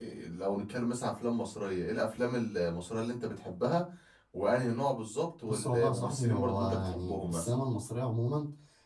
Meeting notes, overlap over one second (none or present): present